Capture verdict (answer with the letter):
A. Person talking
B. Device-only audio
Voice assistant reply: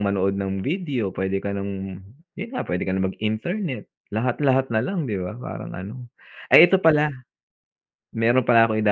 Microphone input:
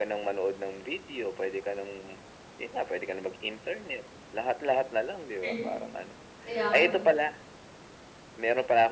A